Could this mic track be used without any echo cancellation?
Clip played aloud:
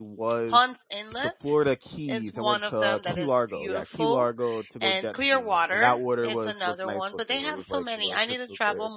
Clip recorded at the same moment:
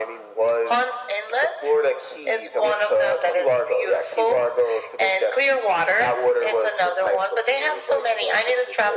No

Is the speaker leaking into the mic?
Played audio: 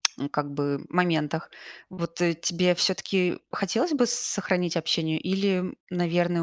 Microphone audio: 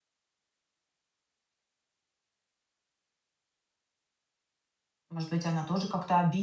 No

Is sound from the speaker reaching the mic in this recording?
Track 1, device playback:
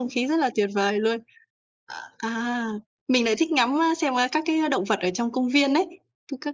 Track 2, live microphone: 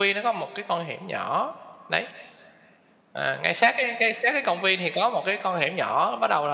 No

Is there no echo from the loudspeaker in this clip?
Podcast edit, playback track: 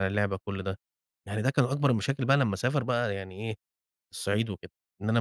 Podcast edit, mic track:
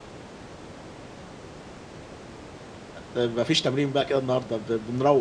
Yes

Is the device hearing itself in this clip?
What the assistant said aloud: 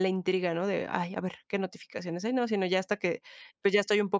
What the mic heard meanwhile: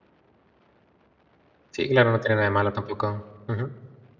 No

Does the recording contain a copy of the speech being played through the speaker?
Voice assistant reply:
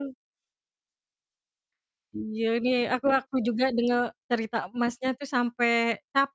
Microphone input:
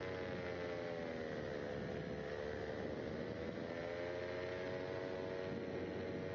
No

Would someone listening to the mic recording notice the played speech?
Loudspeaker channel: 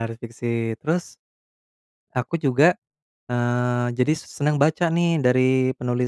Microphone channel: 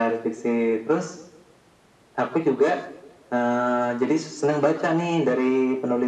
Yes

